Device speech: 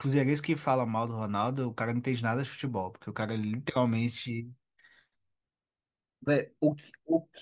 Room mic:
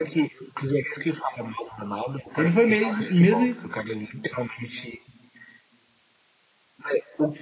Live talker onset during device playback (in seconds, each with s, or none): 2.4 s